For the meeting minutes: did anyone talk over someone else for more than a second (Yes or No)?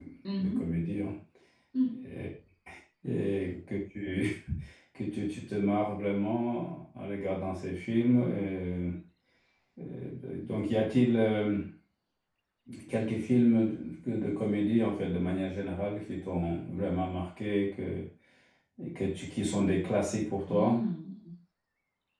No